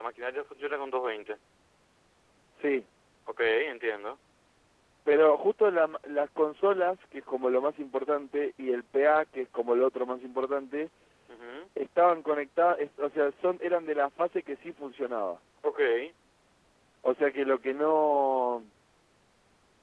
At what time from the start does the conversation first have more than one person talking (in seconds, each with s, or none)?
none